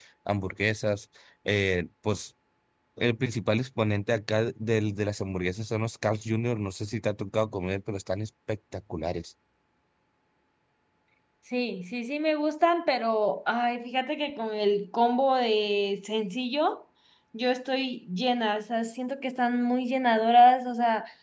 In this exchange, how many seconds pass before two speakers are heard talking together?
none

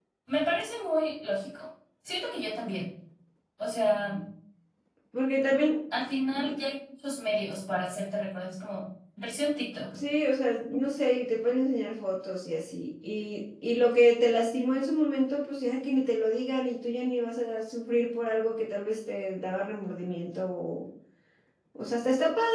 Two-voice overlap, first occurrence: none

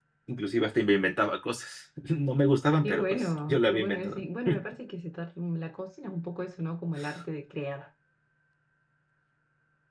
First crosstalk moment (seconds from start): 2.8 s

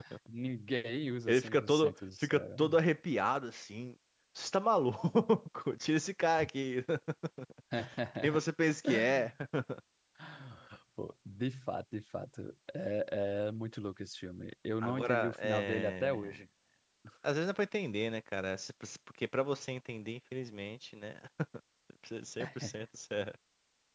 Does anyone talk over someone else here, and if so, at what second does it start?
1.3 s

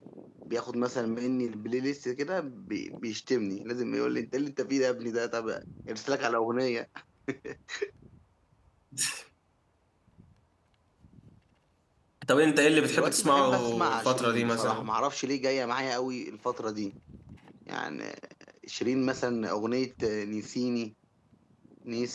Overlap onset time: 12.9 s

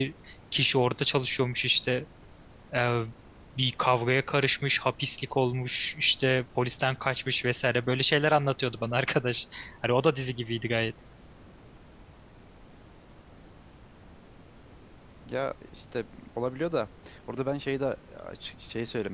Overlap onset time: none

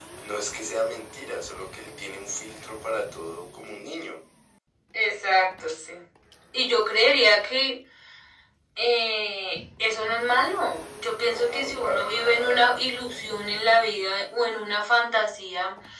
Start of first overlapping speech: 11.2 s

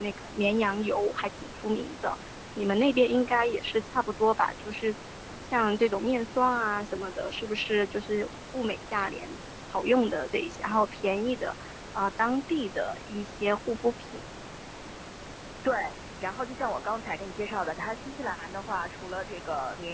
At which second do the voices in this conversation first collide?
none

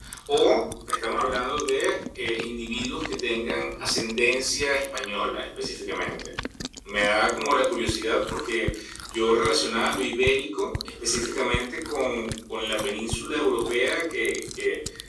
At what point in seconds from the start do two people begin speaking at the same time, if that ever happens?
none

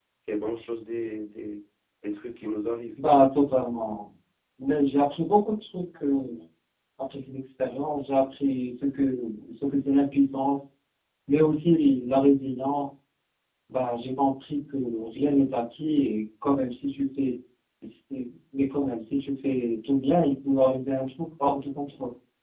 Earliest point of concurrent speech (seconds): none

